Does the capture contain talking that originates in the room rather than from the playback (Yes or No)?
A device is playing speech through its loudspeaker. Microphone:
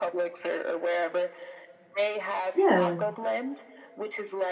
Yes